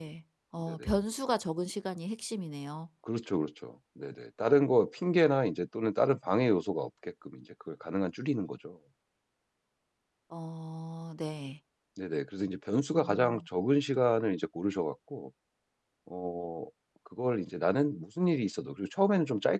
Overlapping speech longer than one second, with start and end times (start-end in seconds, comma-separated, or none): none